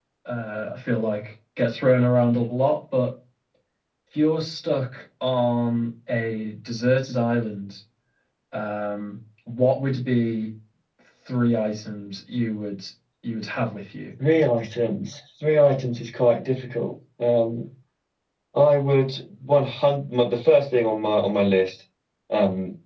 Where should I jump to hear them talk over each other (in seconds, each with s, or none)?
none